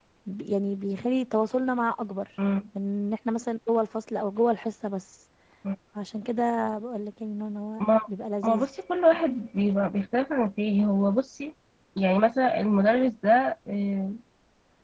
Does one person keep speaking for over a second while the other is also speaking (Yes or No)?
No